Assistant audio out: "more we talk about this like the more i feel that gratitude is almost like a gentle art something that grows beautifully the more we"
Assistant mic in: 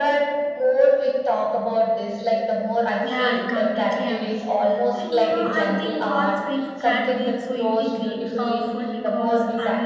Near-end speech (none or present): present